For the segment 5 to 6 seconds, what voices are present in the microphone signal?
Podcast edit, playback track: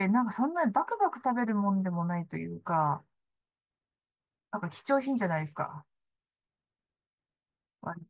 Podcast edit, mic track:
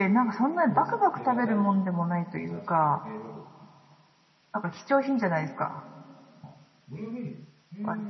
echo only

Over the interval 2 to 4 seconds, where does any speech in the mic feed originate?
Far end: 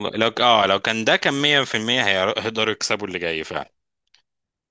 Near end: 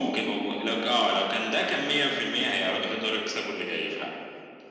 echo only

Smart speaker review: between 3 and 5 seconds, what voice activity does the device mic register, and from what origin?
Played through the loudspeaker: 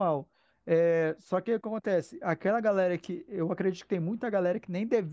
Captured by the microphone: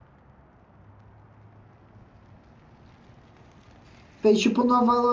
user only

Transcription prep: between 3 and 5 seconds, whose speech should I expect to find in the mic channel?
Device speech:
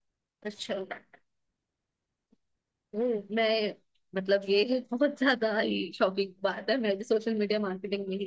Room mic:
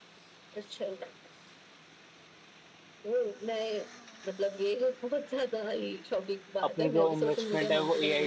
echo only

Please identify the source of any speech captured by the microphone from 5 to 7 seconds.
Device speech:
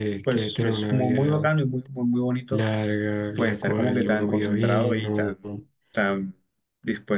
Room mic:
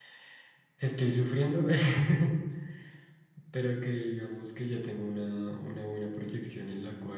user only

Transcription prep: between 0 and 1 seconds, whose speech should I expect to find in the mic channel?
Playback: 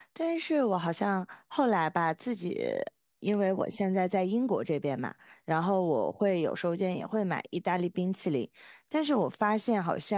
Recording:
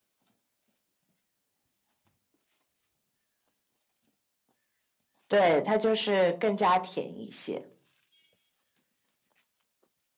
neither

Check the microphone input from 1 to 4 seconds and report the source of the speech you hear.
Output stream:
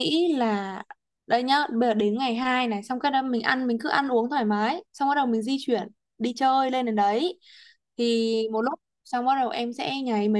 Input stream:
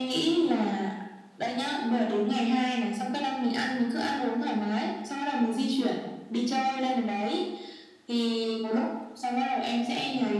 echo only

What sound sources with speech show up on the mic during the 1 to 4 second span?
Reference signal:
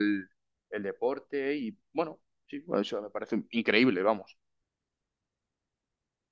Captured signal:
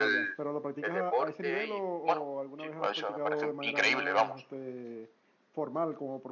both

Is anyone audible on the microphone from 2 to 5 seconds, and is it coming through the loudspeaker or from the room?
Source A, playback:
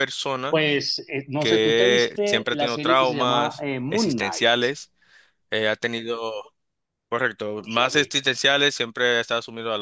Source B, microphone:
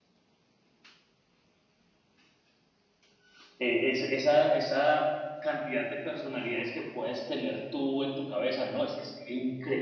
user only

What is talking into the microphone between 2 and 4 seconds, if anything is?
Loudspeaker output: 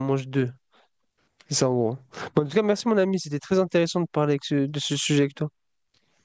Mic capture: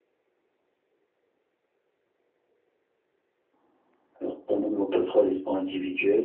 neither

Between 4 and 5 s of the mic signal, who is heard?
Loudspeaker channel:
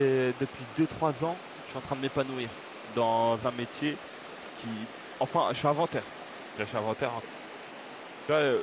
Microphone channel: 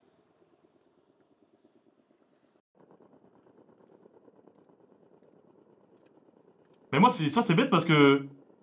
neither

